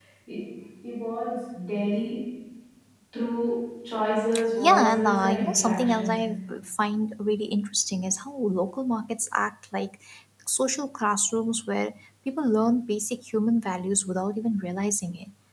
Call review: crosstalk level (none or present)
present